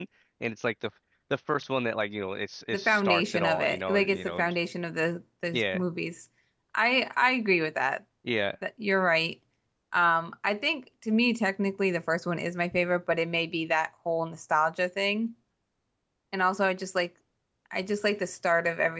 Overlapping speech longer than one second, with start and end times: 2.7-4.5

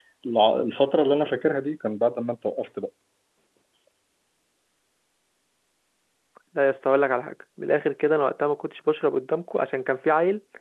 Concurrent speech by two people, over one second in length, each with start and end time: none

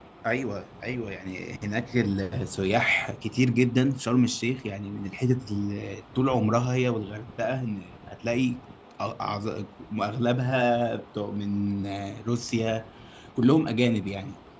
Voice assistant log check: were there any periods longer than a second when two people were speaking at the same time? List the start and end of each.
none

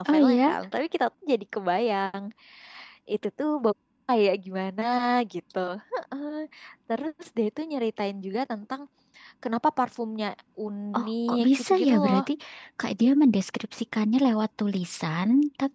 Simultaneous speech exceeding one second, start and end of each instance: 11.0-12.2

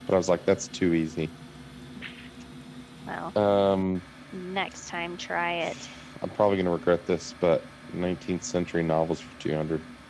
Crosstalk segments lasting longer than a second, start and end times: none

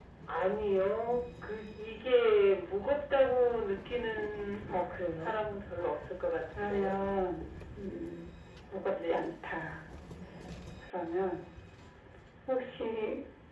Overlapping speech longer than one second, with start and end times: none

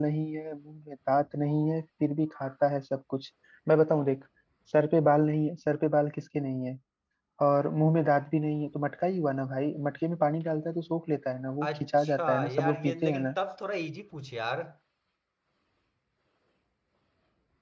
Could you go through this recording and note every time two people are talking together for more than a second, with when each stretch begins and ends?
11.6-13.3

